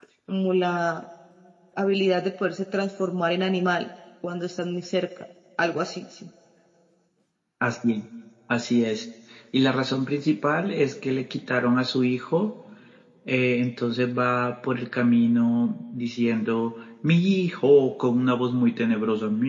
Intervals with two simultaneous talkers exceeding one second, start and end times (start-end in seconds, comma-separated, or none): none